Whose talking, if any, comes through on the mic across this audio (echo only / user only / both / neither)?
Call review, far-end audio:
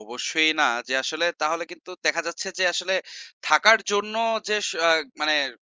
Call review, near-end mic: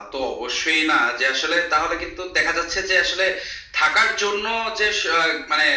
echo only